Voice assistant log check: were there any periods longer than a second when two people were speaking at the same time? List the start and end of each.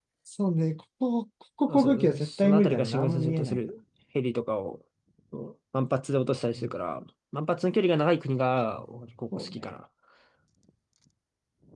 1.7-3.6

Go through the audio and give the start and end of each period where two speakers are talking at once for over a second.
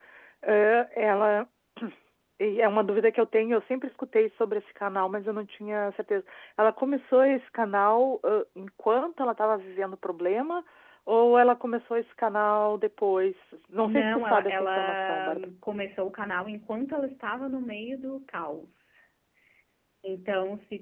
13.8-15.5

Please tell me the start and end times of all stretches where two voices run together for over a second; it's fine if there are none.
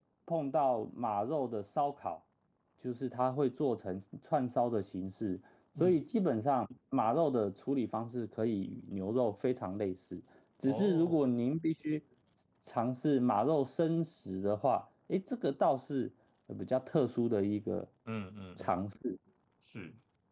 none

